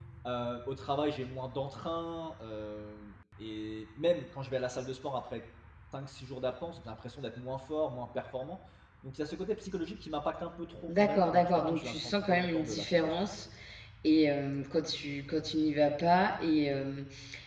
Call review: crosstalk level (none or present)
present